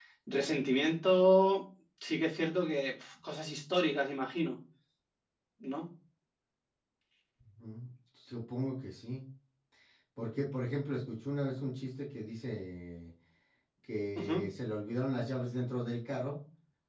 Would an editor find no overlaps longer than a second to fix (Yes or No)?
Yes